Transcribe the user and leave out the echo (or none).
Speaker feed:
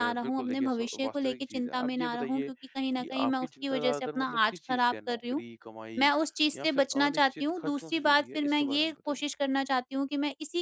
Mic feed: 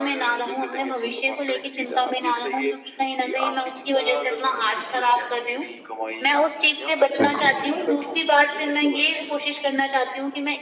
बिल्कुल,